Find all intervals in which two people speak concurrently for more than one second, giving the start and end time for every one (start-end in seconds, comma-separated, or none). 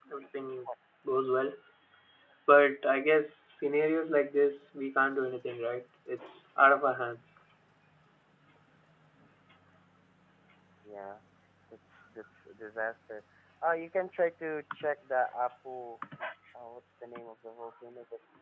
none